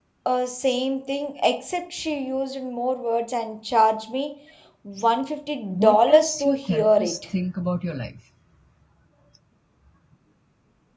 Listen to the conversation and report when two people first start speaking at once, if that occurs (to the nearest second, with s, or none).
6 s